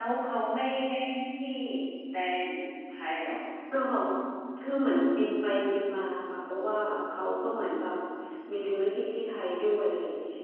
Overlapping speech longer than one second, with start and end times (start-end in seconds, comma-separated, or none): none